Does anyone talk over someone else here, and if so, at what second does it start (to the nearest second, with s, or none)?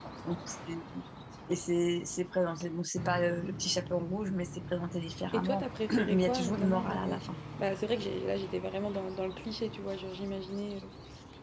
5 s